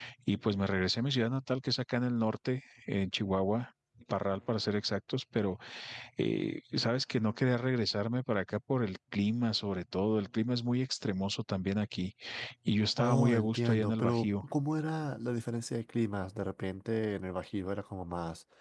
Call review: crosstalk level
present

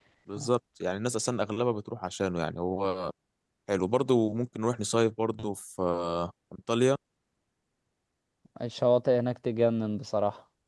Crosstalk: none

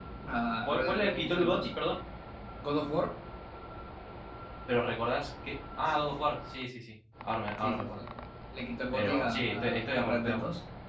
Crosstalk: present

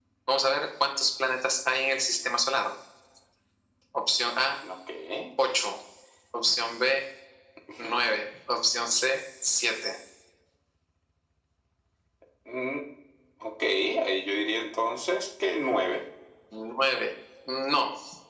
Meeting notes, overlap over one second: none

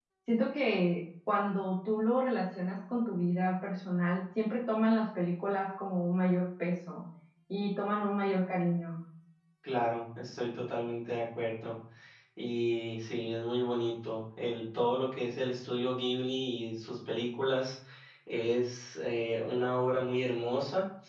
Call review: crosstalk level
none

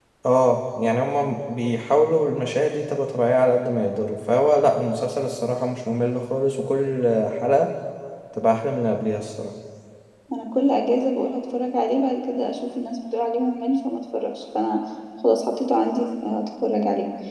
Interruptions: none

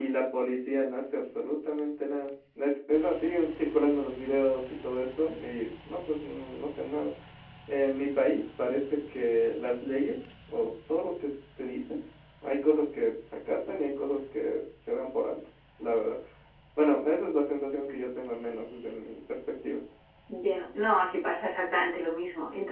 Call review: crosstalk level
none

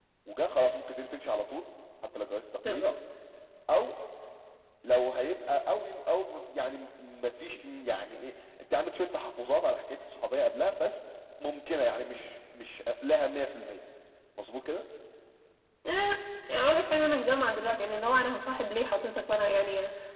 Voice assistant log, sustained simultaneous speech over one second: none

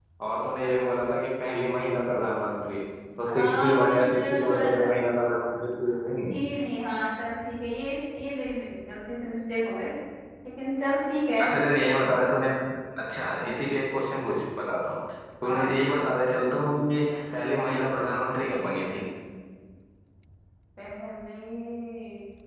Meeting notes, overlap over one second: present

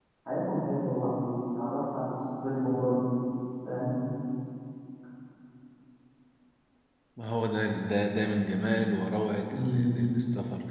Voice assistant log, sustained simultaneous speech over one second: none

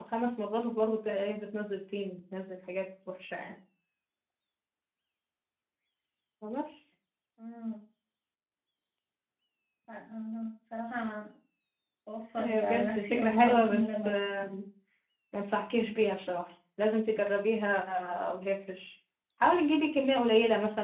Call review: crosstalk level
present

